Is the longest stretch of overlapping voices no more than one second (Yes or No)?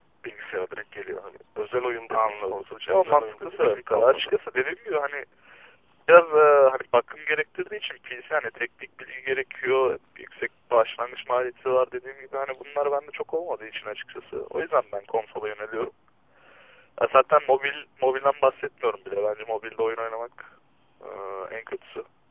No